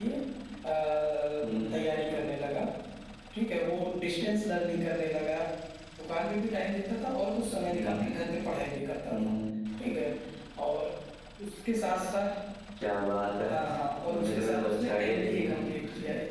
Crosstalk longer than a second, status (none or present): present